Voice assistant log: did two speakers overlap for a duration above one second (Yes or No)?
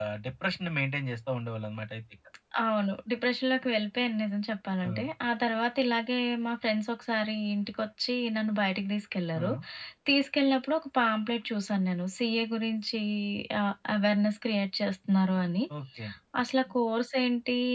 No